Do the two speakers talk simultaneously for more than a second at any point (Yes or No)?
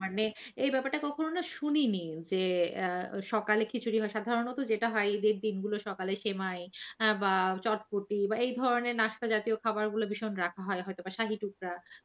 No